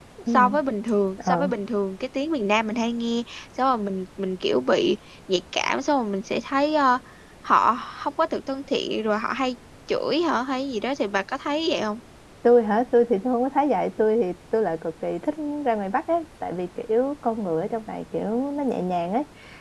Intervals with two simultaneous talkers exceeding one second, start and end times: none

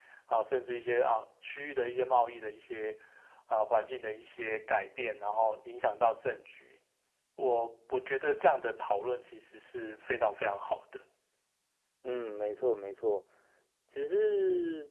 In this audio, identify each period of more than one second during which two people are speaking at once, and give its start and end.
none

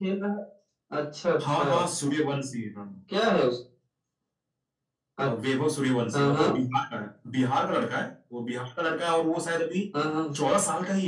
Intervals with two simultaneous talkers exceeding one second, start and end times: none

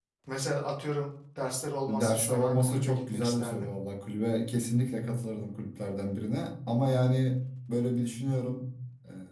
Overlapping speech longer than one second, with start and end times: 1.9-3.7

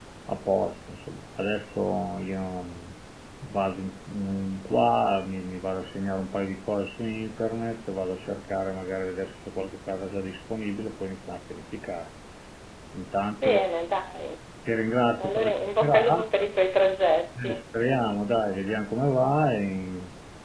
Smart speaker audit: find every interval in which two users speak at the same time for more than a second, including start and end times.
15.2-16.5

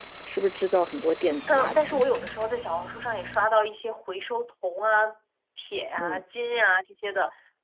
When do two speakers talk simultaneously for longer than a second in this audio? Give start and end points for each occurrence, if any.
none

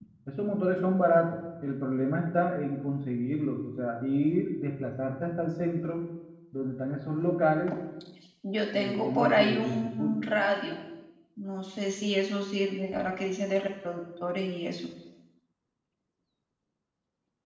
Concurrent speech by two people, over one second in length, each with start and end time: 8.7-10.2

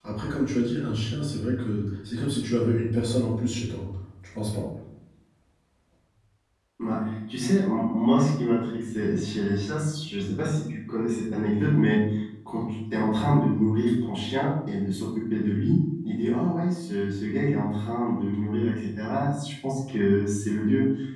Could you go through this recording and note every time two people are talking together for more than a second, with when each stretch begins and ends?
none

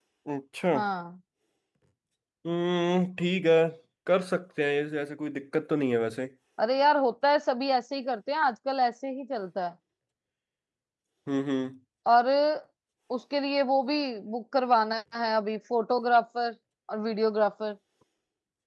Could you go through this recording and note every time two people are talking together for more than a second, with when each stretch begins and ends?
none

